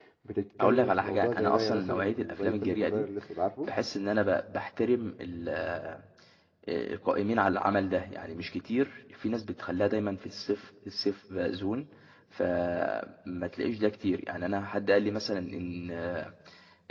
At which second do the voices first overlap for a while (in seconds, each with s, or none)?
0.6 s